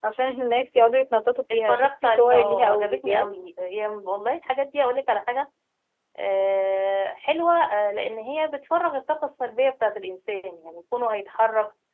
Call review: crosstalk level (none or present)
present